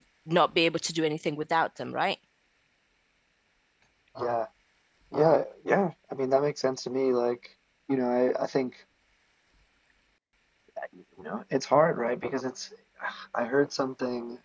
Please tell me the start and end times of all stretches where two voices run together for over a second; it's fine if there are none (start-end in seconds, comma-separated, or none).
none